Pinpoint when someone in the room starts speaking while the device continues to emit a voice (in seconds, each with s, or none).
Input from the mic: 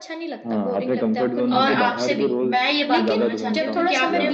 1.5 s